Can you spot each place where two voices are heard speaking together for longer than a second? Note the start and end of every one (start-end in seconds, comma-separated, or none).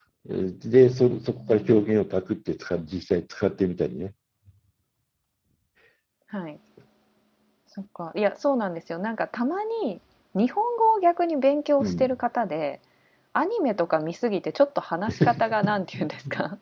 none